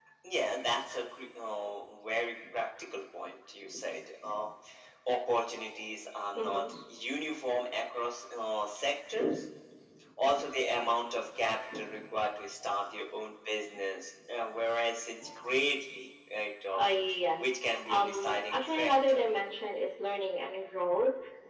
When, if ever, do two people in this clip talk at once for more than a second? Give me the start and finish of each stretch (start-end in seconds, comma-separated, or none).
17.9-19.2